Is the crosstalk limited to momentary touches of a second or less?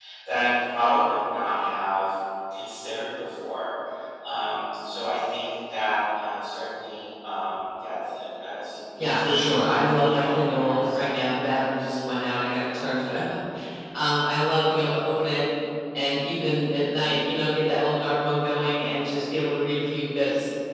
No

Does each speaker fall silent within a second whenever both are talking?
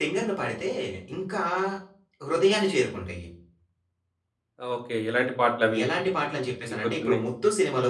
Yes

